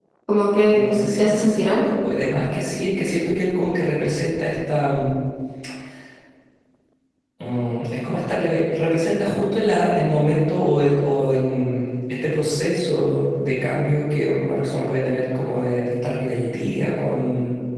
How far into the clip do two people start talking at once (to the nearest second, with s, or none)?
1 s